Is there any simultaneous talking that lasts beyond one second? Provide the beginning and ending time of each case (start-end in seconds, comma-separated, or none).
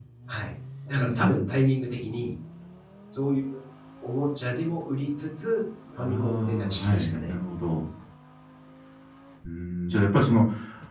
6.0-7.3